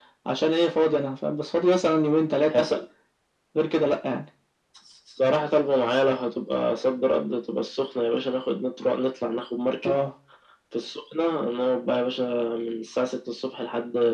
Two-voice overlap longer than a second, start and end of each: none

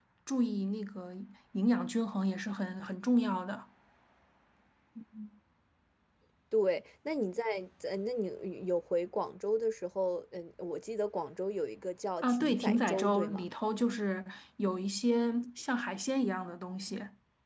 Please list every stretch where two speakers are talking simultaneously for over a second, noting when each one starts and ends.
12.2-13.4

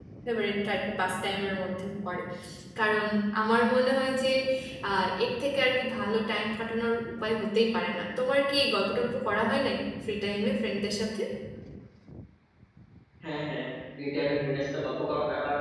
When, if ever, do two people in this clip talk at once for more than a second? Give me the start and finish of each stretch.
none

